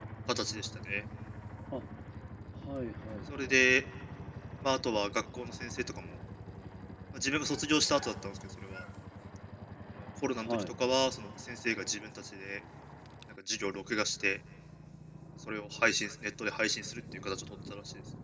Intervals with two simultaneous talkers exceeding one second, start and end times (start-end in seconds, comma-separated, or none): none